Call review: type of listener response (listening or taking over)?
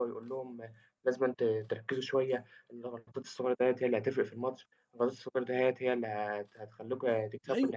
taking over